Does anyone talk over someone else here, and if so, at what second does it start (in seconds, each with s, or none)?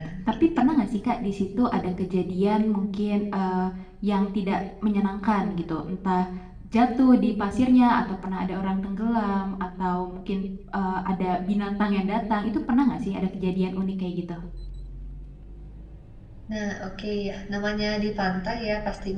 none